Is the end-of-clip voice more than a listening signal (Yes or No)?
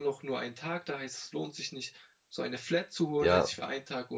No